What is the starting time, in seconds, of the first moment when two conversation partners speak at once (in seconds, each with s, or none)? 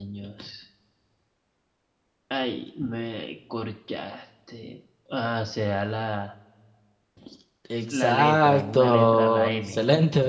7.9 s